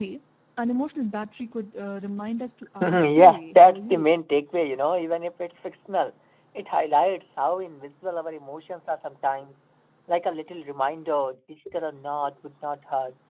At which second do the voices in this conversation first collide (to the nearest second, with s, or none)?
3 s